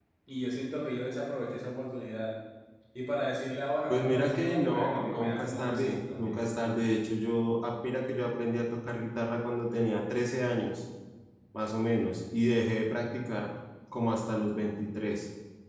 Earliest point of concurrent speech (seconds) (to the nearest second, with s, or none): 4 s